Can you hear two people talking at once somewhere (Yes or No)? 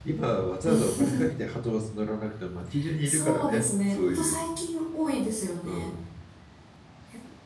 Yes